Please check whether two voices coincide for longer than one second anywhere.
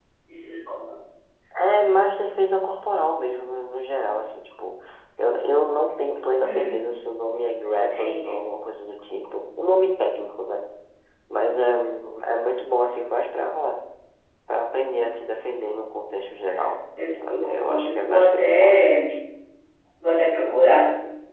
Yes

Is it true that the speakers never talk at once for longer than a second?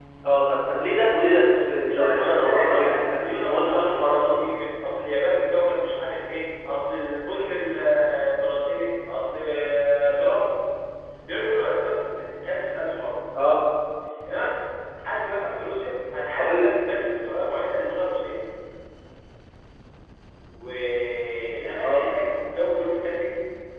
No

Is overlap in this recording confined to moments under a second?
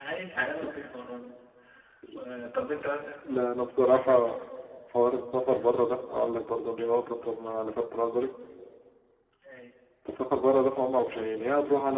Yes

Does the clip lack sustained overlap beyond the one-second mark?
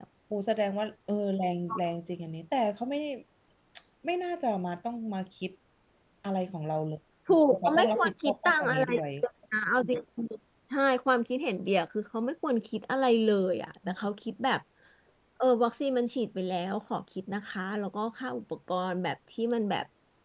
No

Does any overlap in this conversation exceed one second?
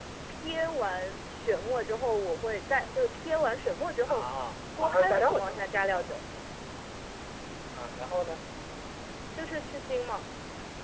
Yes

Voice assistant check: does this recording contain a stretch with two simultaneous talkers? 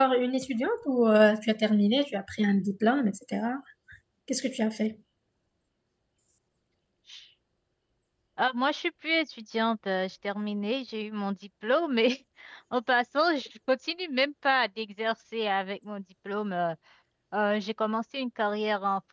No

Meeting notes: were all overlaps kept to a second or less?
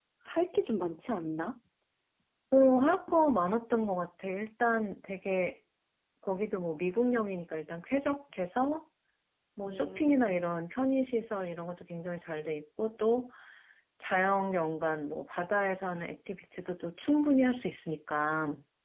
Yes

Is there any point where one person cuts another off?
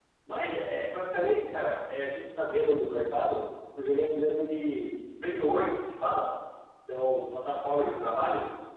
No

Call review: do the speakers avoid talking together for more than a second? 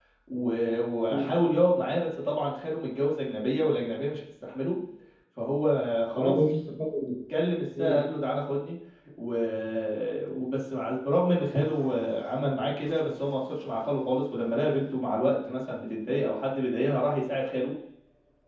Yes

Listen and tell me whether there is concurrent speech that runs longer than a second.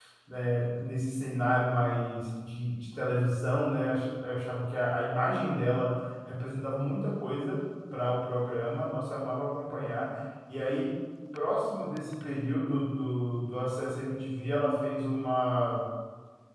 No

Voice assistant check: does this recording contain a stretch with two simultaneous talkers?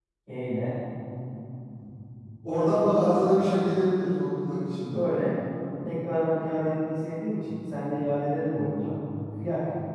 No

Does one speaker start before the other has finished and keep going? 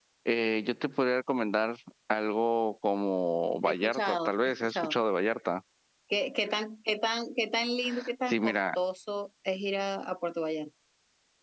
Yes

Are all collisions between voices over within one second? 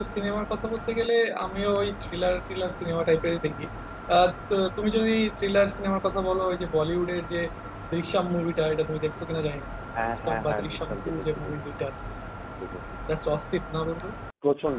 No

